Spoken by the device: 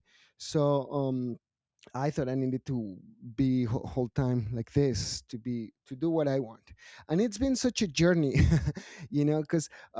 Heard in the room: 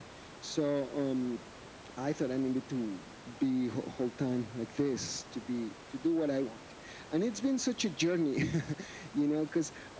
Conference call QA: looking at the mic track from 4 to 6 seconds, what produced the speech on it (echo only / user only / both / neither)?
echo only